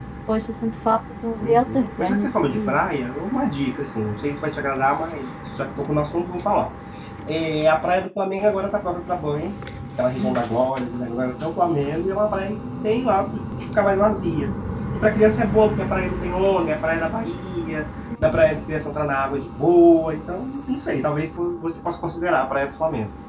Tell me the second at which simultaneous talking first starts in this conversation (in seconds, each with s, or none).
1.4 s